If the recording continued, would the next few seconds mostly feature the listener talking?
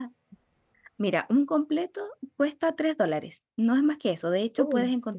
No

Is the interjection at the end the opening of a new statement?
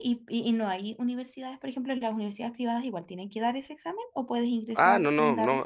Yes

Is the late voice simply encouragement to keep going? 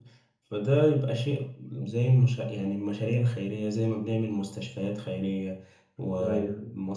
Yes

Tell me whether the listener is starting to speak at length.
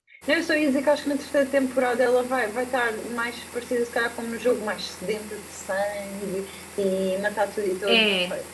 Yes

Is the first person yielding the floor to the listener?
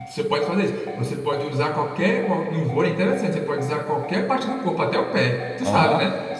Yes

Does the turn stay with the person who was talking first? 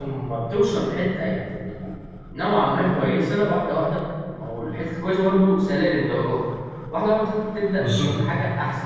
Yes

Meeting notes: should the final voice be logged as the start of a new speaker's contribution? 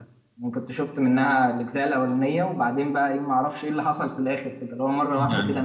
No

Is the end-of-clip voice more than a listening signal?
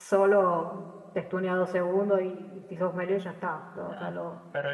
Yes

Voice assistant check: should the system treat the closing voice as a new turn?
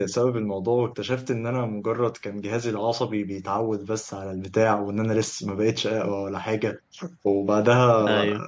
Yes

